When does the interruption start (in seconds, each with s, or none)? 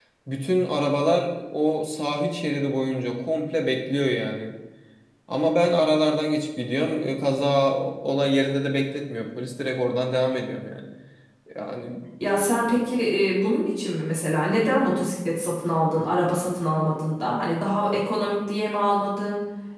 none